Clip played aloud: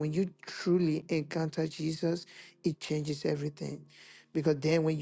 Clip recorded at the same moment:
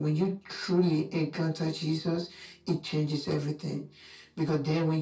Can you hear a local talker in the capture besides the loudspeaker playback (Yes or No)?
No